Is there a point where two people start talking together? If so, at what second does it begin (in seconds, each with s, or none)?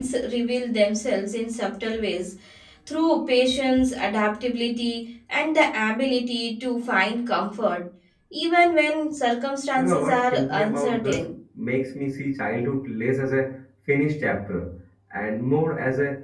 9.8 s